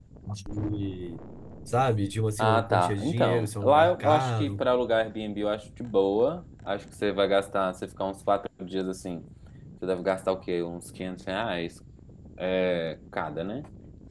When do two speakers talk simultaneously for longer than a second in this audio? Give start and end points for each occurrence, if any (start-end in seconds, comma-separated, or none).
2.4-4.7